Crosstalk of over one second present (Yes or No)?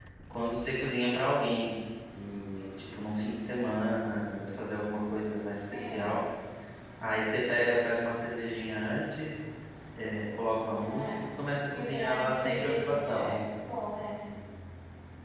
Yes